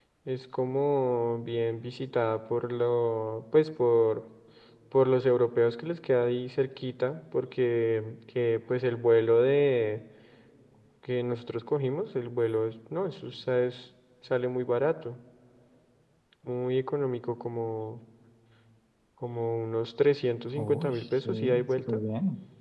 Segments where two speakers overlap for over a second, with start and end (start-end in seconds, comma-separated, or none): 20.6-22.0